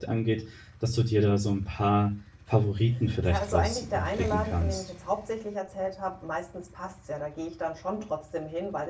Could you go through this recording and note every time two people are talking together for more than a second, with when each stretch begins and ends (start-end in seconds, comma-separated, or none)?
3.3-4.8